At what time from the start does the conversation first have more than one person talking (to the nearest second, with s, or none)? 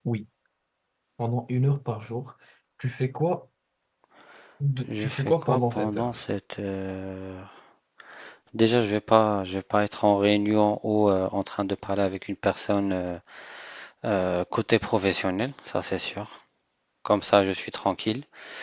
5 s